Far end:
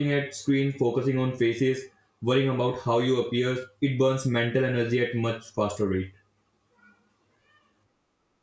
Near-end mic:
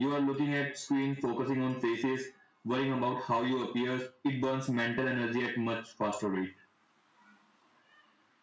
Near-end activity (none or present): none